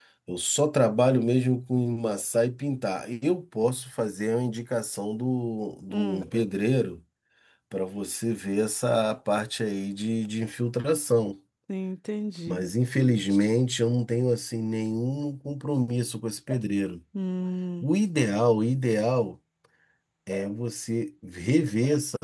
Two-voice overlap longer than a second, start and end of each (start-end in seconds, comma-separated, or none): none